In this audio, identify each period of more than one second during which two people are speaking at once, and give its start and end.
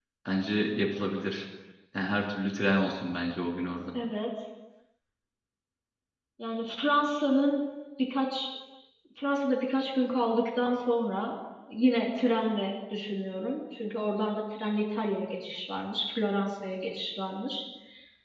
none

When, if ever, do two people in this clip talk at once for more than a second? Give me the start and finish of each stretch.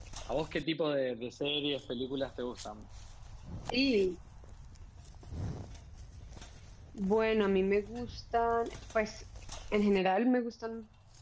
none

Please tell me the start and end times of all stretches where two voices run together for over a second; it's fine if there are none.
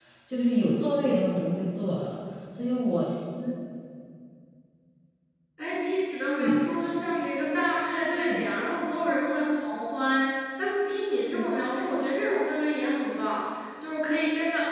none

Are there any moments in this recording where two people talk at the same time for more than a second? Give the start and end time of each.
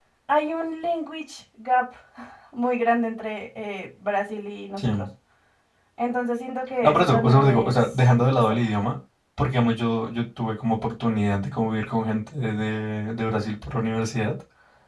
6.8-8.6

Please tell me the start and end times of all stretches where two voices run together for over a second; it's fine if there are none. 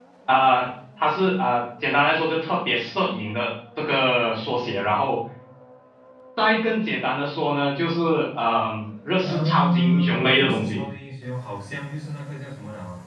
9.2-10.8

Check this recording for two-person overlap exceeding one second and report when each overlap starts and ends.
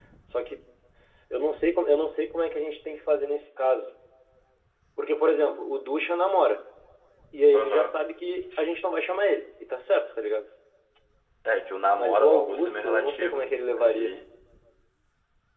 12.0-14.1

